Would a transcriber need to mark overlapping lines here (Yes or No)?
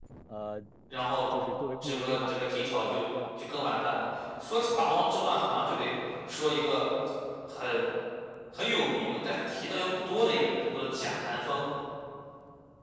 Yes